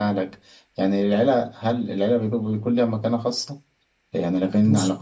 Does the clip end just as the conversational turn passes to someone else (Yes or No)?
No